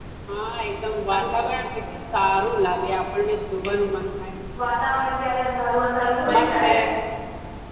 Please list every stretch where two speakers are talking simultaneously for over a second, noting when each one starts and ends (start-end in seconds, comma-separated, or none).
none